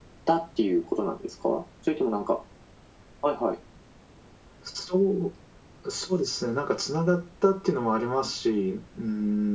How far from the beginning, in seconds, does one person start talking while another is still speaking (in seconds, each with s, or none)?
none